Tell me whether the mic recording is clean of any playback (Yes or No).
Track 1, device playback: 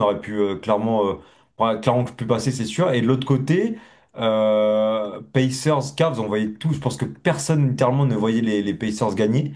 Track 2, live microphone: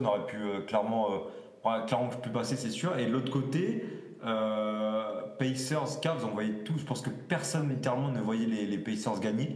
No